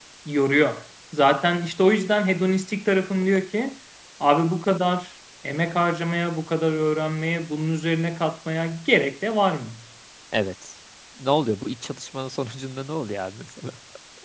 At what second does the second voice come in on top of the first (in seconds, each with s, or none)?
none